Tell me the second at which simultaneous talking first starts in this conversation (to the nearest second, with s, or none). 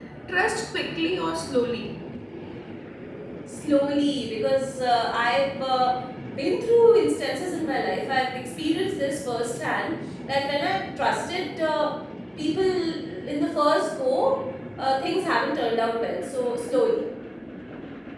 none